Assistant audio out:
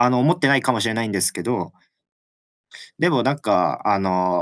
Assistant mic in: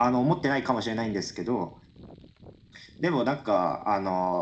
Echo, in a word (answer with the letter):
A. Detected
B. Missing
A